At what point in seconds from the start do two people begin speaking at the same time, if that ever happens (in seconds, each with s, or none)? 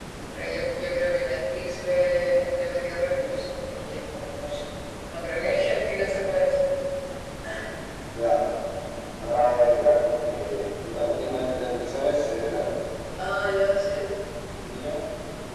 none